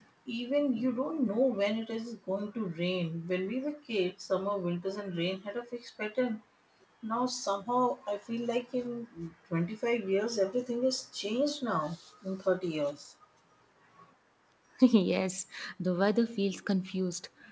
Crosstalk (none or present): none